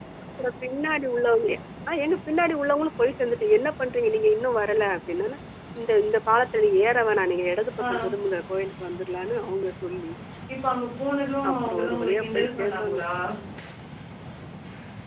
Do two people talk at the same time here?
Yes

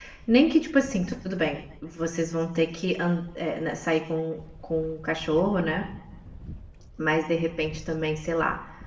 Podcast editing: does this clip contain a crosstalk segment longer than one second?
No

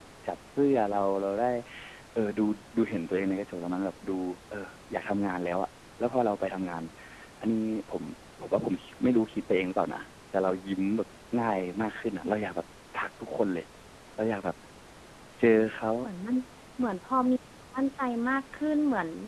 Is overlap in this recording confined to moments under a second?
Yes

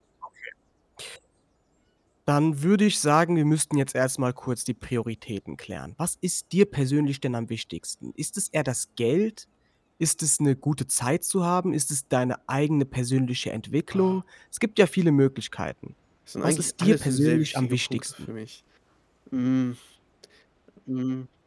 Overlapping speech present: Yes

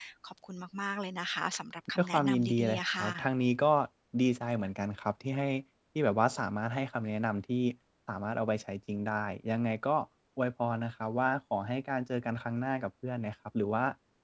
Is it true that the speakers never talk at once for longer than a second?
No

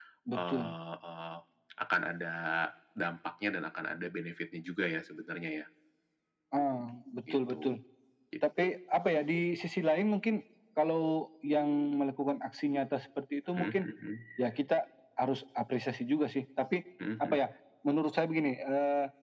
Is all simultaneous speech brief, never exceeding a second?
Yes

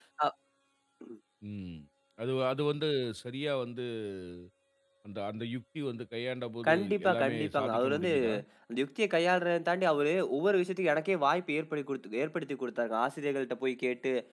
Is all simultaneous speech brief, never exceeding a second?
No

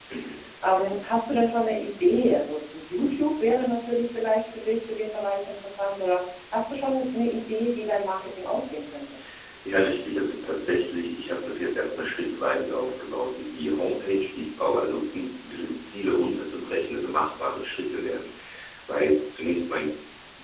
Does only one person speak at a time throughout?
Yes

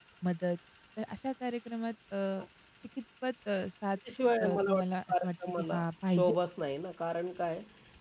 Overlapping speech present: Yes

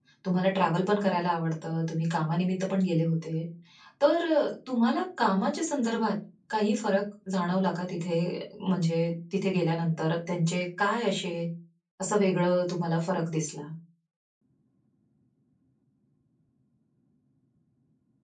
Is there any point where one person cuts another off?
No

